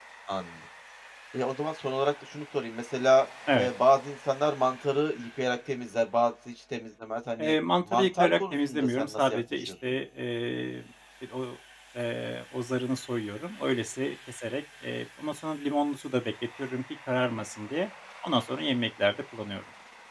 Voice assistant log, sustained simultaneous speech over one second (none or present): present